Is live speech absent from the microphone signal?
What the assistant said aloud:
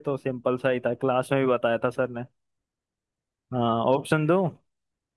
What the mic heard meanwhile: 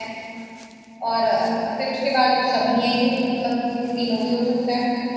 No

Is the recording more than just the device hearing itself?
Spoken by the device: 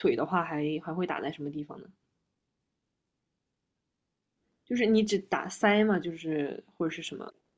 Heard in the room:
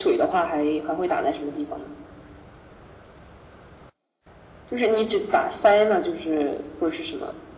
No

